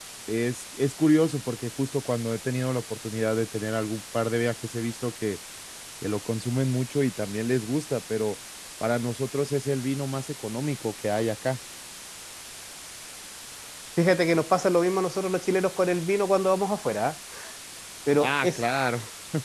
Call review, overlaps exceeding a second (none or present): none